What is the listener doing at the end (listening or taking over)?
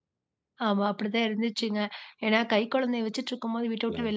listening